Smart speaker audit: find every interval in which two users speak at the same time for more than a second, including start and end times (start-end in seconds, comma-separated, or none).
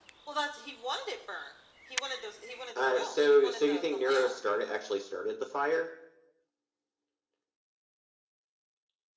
2.8-4.4